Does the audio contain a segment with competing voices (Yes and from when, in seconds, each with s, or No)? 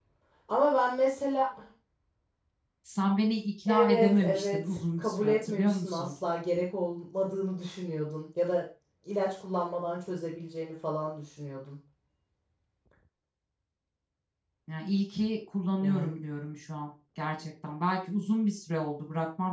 Yes, from 3.7 s